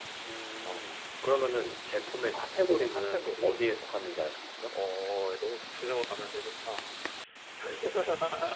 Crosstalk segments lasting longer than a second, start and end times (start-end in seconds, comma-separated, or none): 2.3-3.6